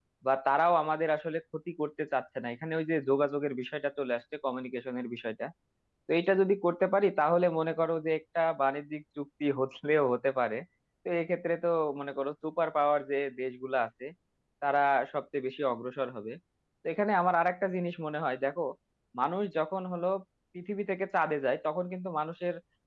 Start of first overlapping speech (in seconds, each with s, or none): none